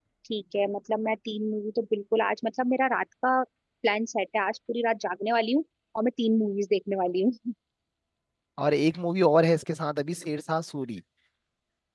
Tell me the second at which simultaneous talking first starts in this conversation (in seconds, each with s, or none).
none